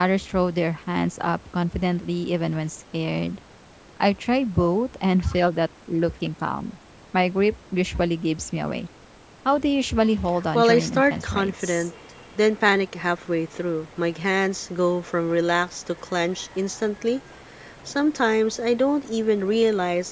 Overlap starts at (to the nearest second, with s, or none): 11 s